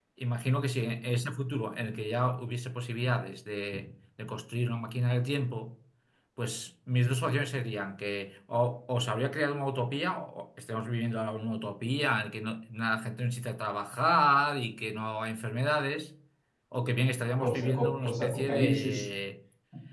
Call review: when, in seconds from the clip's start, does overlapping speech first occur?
17.4 s

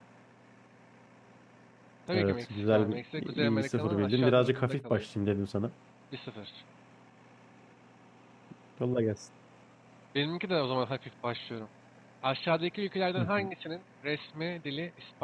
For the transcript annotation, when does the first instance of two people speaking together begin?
2.1 s

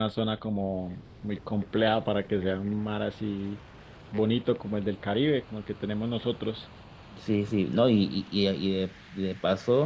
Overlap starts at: none

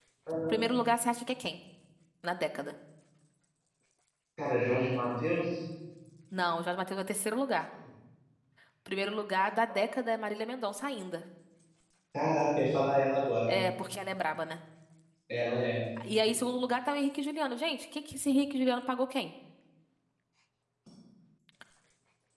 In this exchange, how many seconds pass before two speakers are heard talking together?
none

